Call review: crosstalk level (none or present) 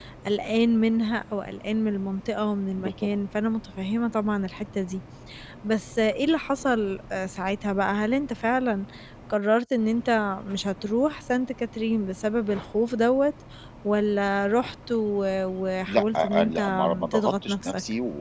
present